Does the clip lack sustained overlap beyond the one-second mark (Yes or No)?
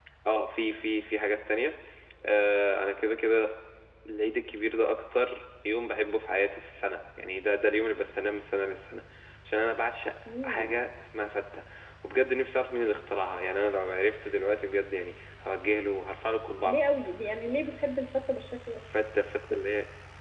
Yes